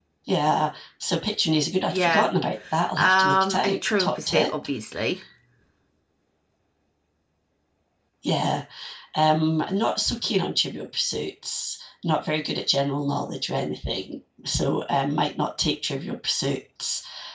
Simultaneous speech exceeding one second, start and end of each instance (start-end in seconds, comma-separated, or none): 3.0-4.5